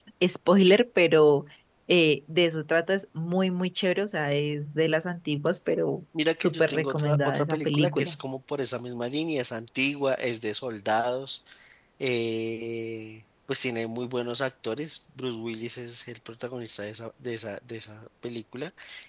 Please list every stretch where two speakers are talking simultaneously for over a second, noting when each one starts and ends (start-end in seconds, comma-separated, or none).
6.4-8.2